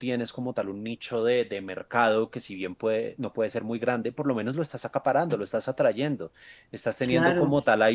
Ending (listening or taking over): listening